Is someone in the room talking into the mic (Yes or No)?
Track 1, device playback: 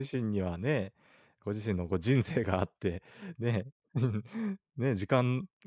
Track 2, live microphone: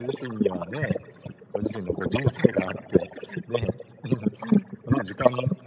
No